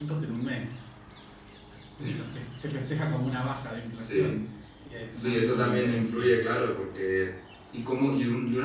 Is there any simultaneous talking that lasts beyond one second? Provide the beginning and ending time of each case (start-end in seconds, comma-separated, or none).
5.1-6.3